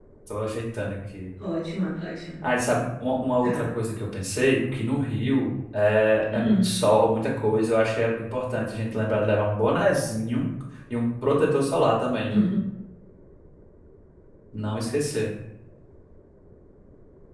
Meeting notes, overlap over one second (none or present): none